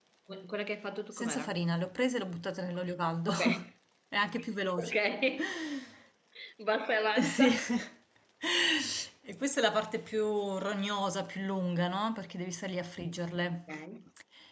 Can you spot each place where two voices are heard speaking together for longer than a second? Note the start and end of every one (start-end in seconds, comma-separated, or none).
none